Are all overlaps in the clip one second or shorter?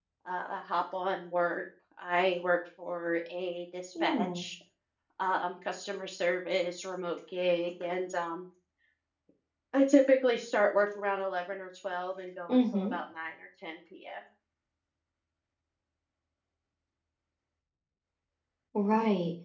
Yes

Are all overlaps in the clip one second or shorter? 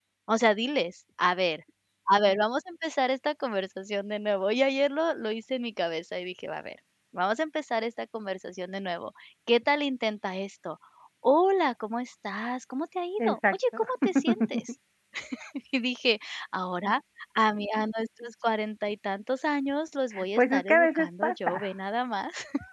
No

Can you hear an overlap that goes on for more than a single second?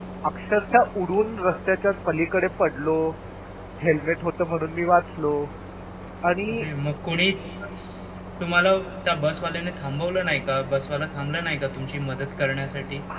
No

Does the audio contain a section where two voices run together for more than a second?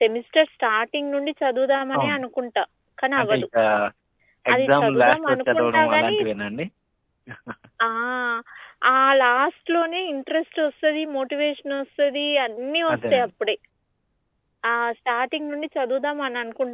Yes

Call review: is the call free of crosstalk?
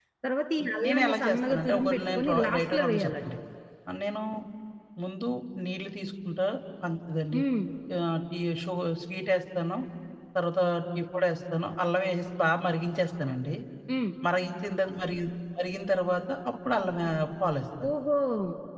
No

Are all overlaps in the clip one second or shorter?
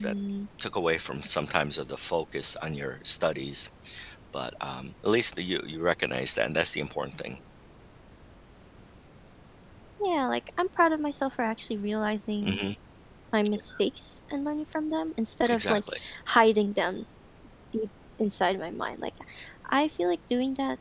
Yes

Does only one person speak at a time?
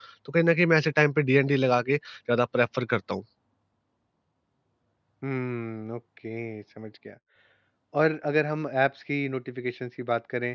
Yes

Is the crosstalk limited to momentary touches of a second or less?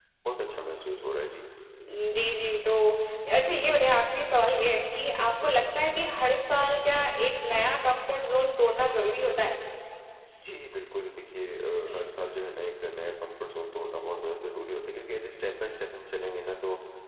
Yes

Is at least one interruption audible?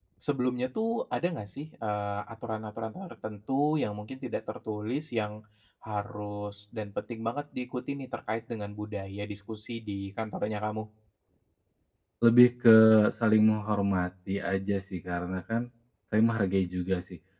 No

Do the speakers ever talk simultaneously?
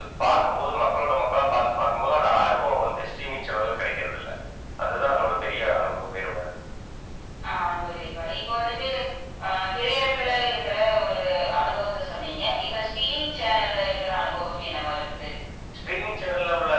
No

